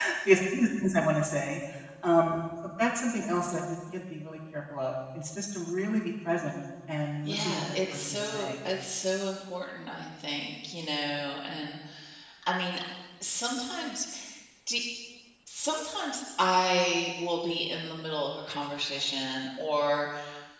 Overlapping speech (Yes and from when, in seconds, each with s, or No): Yes, from 7.2 s